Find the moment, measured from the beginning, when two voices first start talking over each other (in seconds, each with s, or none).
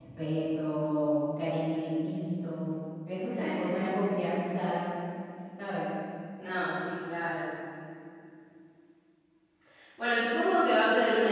none